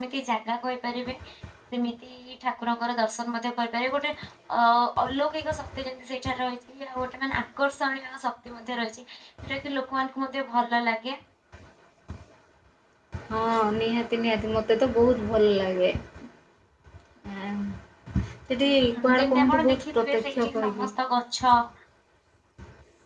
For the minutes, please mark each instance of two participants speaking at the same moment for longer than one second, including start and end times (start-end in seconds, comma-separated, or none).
18.7-20.8